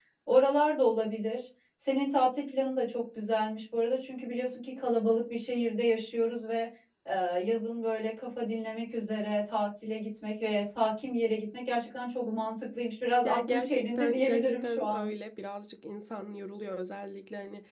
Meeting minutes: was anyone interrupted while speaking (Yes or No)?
Yes